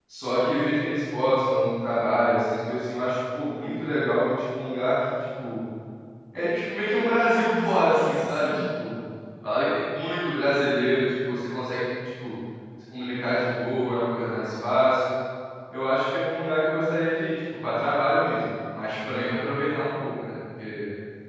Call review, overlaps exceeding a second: present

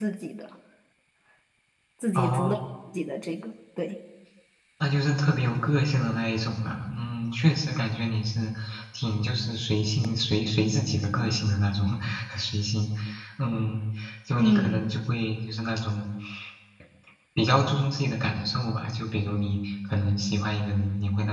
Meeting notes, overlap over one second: none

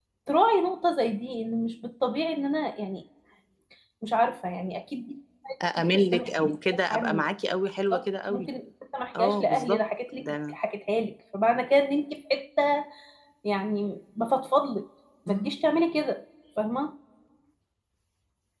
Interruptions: present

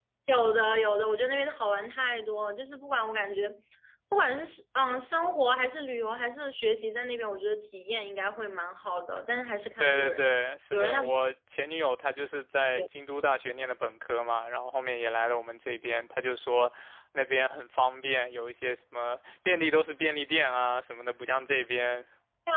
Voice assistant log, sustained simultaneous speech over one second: none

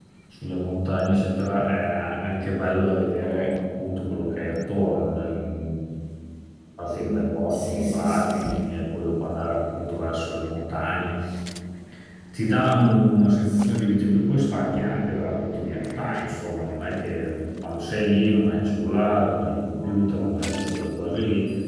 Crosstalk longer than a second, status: present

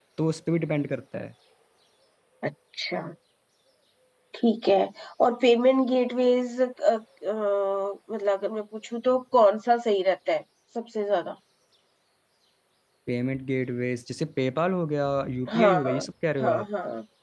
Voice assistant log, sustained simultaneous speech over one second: none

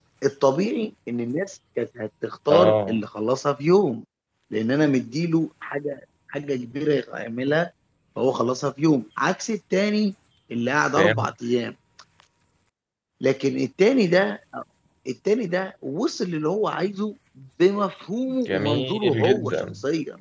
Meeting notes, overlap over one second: present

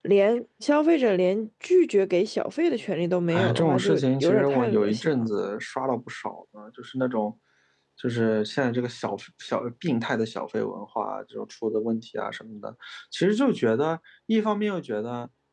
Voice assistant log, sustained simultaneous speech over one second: present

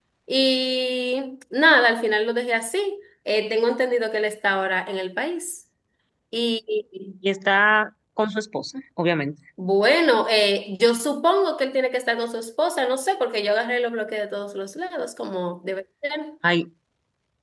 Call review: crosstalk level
none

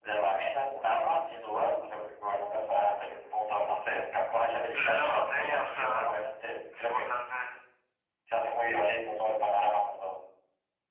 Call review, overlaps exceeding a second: present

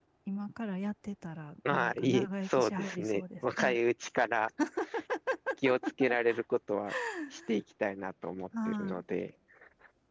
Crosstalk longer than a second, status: present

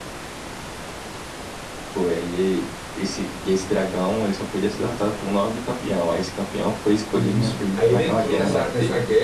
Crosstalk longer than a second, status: present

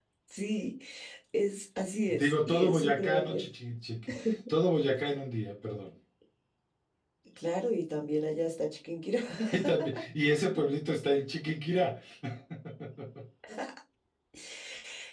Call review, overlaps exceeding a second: present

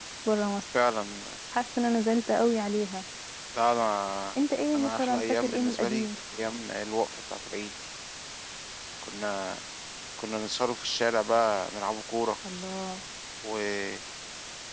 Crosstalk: present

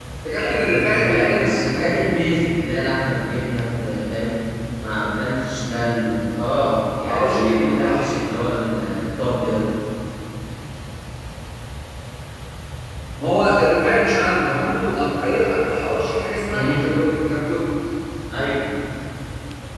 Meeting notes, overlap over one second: present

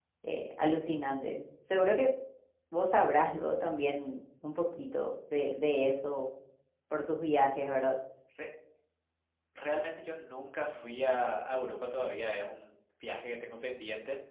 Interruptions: none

